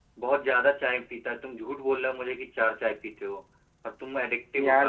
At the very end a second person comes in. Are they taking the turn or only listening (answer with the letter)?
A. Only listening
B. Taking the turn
B